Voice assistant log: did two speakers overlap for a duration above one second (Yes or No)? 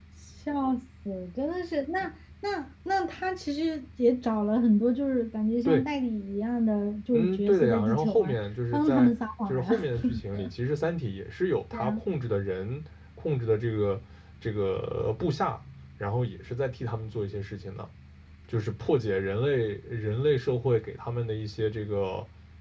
Yes